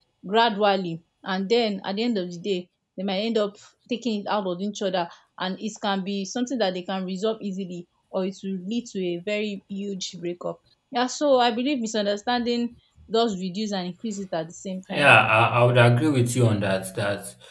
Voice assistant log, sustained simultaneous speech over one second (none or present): none